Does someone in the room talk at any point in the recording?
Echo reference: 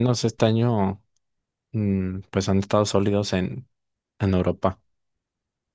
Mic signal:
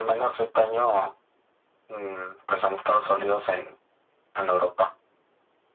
No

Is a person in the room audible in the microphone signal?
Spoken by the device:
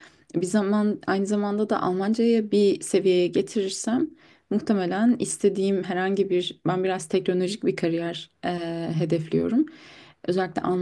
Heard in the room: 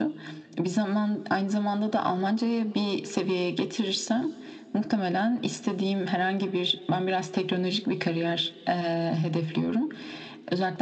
No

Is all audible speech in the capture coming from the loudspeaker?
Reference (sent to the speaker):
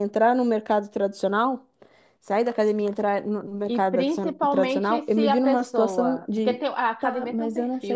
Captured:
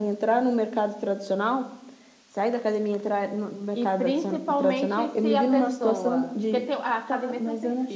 Yes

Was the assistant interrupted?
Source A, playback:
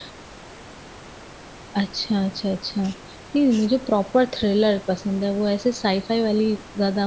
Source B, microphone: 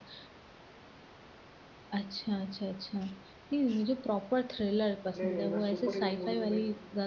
Yes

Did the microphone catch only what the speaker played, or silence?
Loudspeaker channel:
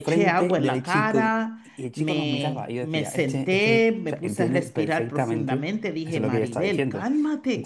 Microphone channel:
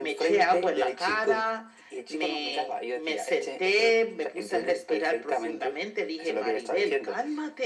Yes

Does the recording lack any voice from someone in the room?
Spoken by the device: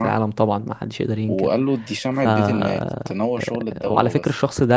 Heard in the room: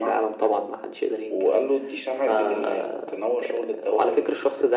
Yes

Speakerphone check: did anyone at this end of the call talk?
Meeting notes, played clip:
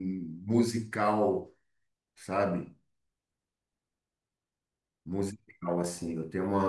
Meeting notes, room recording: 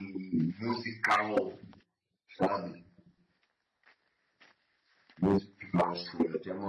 No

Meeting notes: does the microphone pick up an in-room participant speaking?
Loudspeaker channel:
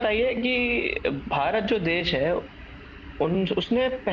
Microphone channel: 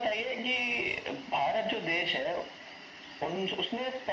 No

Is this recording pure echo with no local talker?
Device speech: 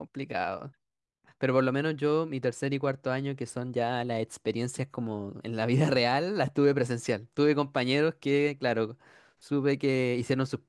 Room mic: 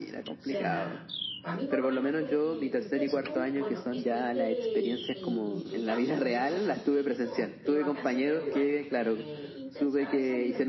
No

